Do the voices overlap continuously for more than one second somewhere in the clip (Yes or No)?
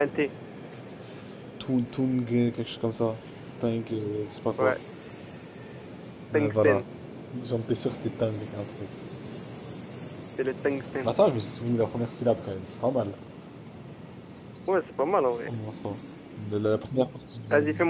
No